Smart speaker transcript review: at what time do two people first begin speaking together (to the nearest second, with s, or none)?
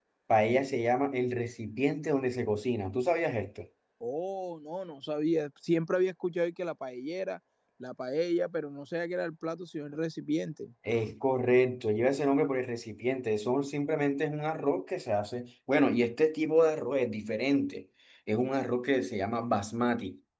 none